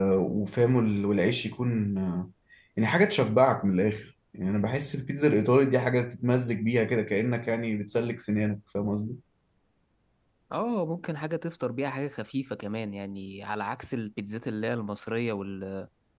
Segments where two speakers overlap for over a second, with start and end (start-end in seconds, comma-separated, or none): none